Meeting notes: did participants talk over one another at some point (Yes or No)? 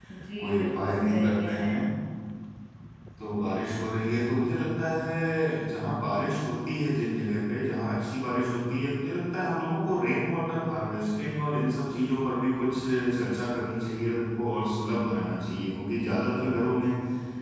Yes